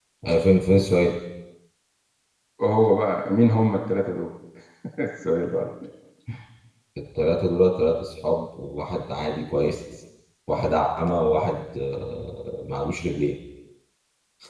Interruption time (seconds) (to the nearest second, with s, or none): none